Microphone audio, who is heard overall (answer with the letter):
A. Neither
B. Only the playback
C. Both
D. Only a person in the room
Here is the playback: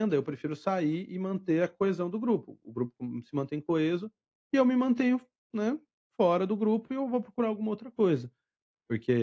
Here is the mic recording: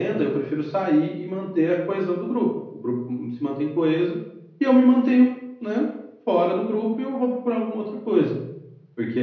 B